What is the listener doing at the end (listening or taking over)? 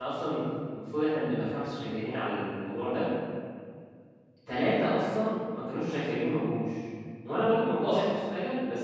listening